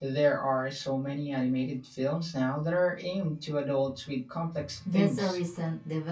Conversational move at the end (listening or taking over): taking over